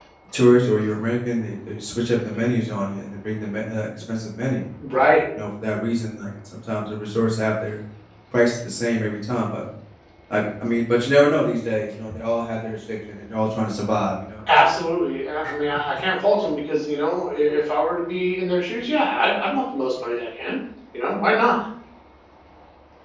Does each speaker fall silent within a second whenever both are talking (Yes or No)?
Yes